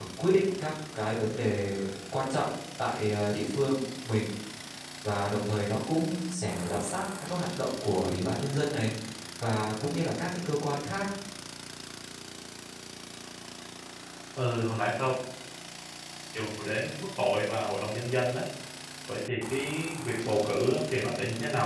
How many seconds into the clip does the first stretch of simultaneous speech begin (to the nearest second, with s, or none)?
none